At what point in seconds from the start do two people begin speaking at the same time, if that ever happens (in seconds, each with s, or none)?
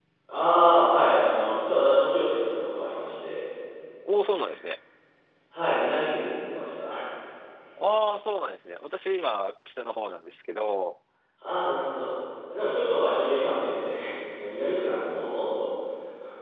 none